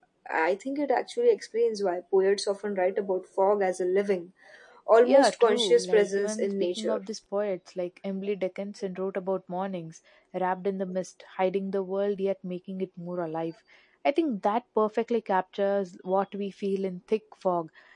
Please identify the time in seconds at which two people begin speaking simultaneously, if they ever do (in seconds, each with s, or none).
5.0 s